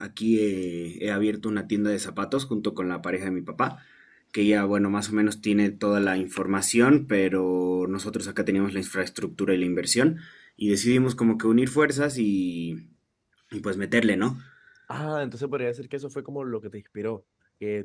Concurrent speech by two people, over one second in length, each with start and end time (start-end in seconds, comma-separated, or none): none